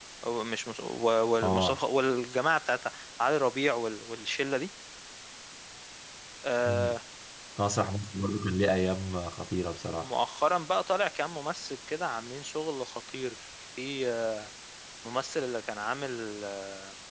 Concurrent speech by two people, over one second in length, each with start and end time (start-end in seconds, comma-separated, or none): none